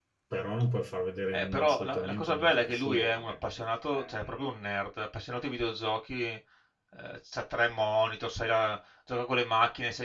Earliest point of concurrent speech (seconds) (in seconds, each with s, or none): 1.3 s